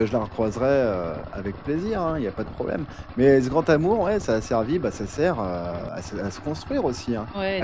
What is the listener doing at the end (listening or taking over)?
taking over